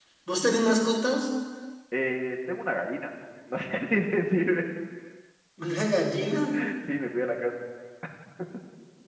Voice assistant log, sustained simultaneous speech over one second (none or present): none